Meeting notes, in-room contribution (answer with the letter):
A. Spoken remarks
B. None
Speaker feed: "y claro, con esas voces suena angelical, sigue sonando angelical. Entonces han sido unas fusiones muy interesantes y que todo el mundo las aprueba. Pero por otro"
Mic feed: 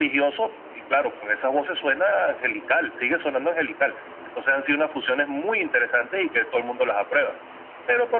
B